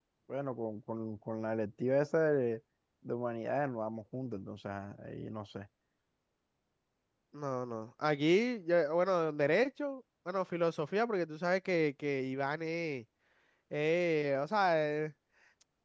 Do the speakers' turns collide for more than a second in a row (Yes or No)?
No